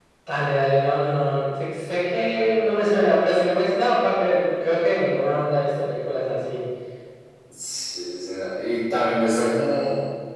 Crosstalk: none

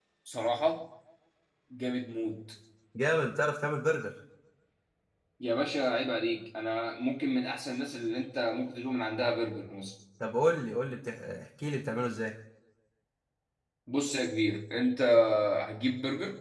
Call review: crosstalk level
none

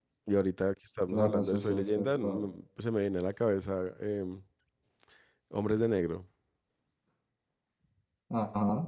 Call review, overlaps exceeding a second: present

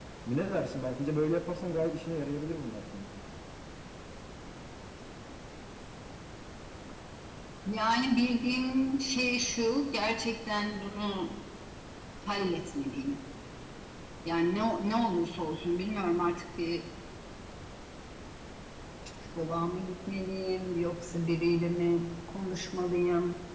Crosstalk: none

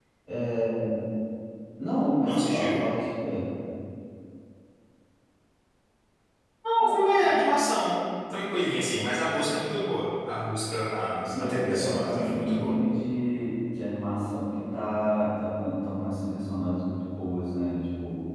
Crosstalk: present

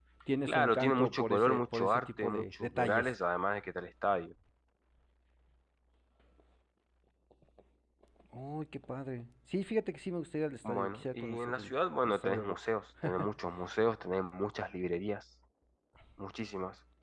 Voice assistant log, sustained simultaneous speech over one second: present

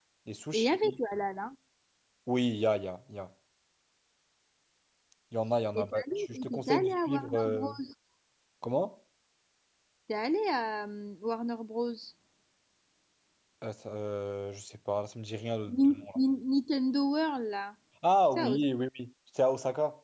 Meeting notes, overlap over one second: present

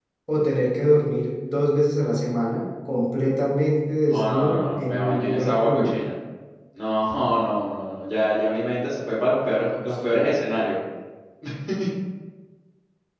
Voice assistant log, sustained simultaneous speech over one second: present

